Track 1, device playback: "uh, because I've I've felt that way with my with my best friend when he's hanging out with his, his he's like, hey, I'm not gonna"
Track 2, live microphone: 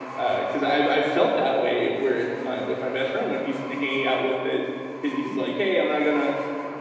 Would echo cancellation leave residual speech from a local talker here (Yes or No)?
No